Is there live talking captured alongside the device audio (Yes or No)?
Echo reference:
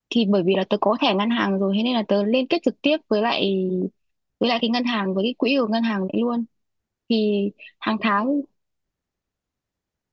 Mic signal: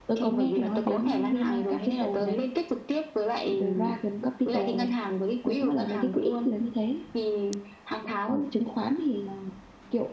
Yes